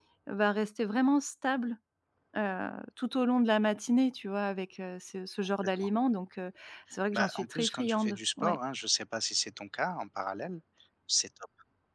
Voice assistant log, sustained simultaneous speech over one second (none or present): present